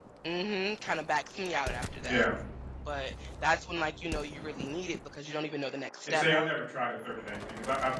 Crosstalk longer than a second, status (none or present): none